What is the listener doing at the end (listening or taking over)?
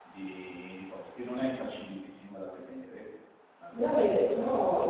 taking over